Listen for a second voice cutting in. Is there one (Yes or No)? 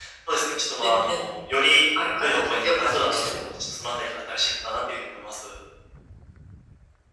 Yes